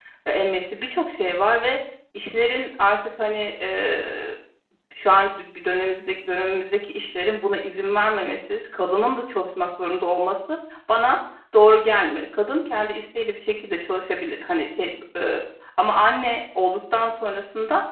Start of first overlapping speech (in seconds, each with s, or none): none